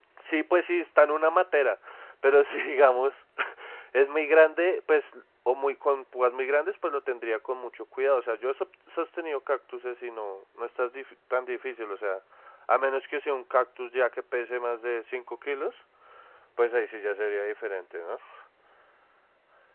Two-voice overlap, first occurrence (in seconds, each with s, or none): none